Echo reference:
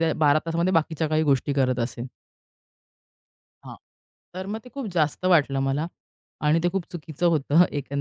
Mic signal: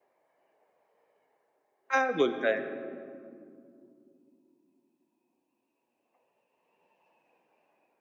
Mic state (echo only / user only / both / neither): user only